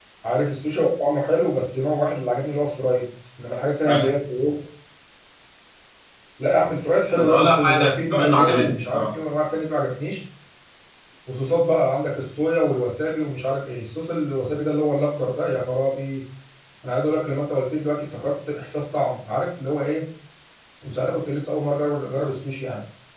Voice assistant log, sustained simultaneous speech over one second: present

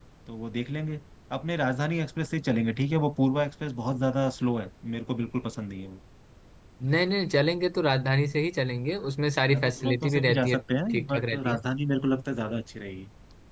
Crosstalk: present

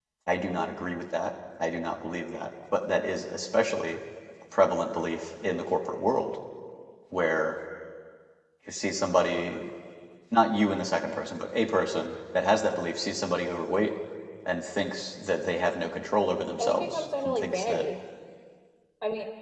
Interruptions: present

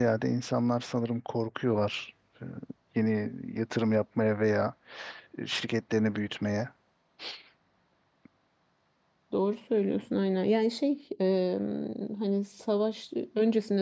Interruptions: none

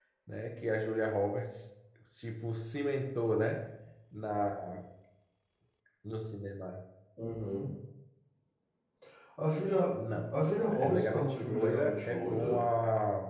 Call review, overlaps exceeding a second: present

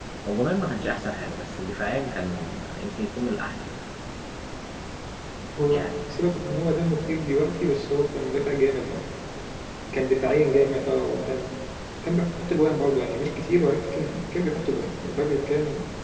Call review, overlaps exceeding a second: none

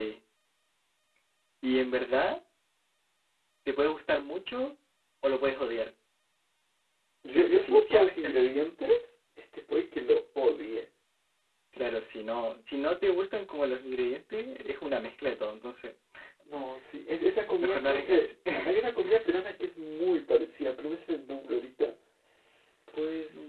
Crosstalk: present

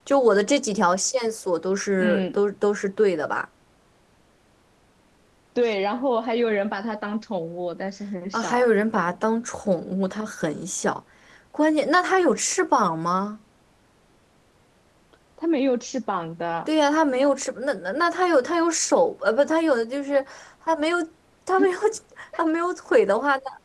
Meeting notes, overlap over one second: none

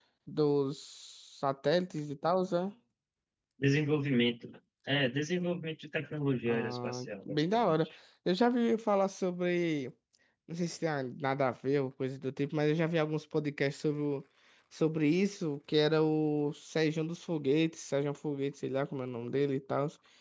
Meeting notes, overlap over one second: present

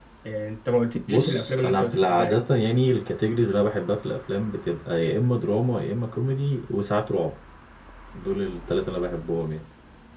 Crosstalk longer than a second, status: present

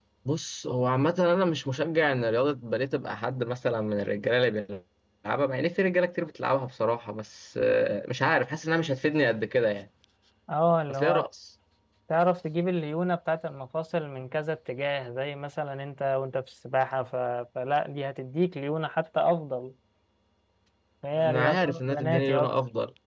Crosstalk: present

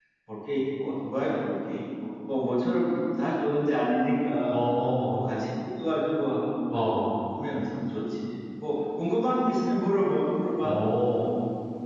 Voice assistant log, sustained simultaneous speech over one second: none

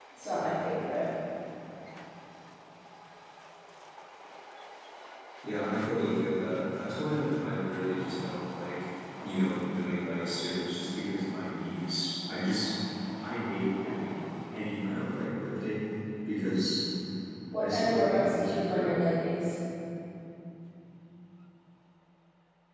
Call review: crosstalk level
present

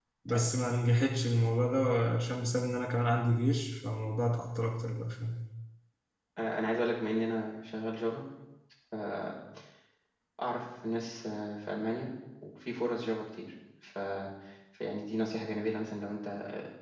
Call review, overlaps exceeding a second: none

